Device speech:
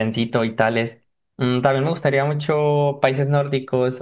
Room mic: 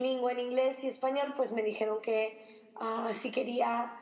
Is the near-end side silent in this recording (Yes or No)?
No